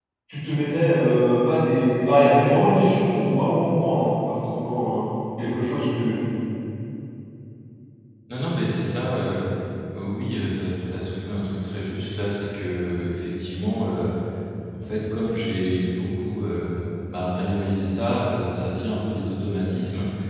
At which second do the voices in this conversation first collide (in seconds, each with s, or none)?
none